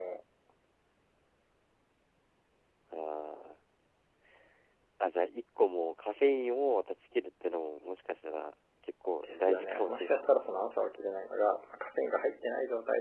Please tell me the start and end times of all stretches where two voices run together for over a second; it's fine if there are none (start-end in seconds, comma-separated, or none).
9.2-10.6